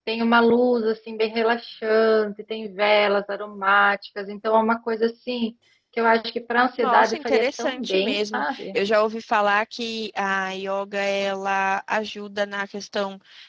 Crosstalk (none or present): present